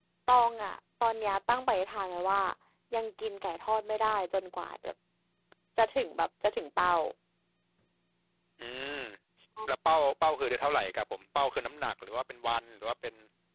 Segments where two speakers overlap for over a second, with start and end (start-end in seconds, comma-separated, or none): none